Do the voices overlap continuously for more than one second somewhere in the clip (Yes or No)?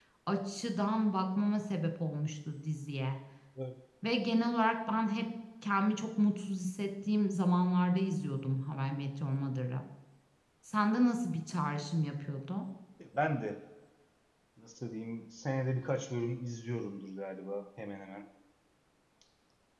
No